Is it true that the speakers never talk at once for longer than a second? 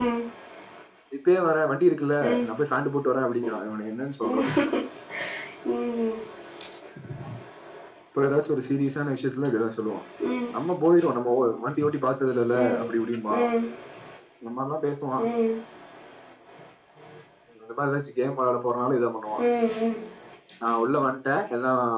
Yes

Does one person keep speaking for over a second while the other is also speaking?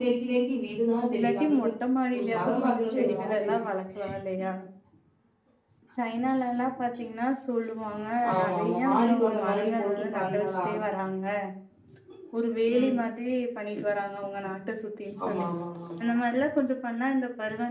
Yes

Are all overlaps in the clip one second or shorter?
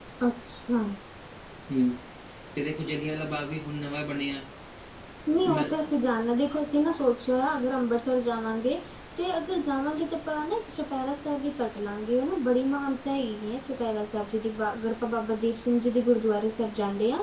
Yes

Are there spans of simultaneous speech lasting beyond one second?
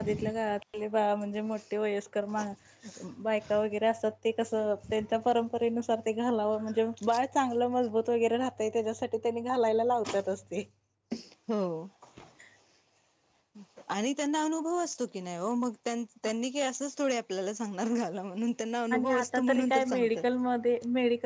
Yes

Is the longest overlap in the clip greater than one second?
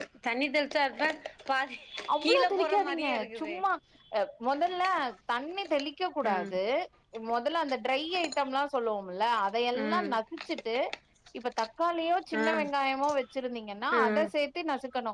Yes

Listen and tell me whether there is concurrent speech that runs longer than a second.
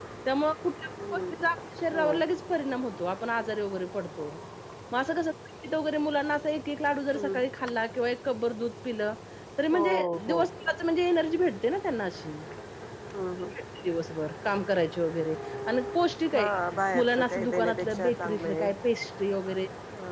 Yes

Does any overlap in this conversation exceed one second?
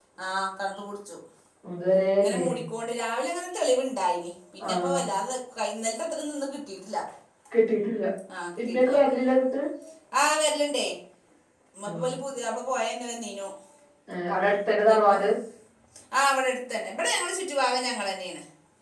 No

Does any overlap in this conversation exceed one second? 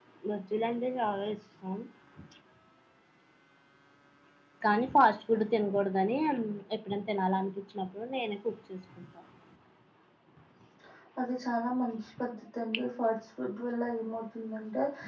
No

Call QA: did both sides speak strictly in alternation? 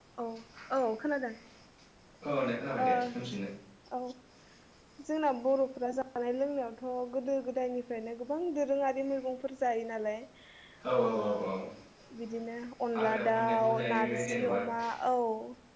No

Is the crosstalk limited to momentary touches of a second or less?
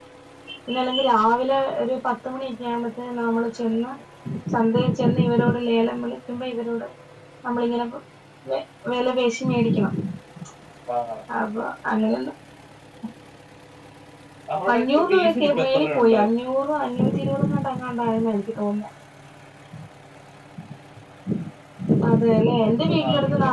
No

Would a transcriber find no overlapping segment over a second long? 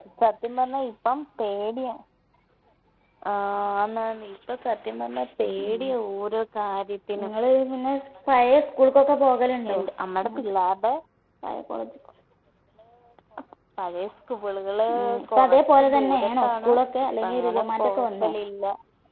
No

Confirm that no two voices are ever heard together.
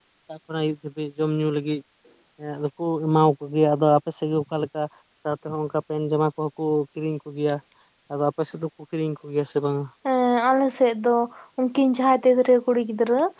Yes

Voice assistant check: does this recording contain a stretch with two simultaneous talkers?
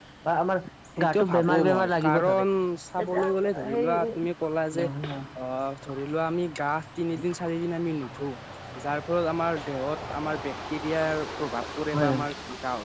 Yes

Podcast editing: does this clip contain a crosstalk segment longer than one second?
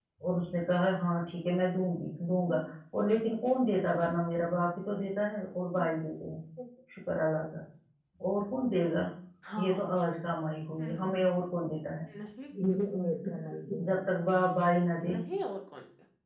No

